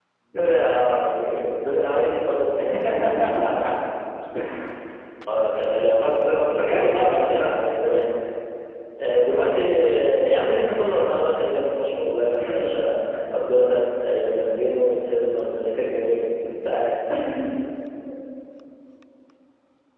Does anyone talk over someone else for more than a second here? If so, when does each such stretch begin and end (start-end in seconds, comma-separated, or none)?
6.0-7.6